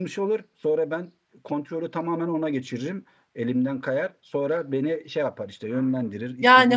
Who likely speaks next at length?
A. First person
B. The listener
B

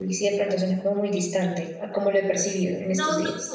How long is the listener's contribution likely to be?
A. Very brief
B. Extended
B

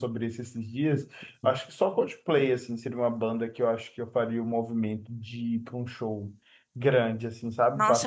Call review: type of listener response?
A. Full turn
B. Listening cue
A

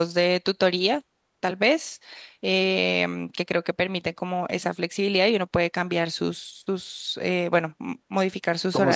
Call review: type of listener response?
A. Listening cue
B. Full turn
B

